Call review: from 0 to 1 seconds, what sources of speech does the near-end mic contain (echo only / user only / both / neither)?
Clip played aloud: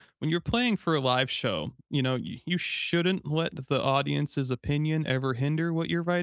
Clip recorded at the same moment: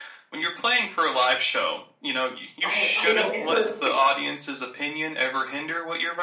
echo only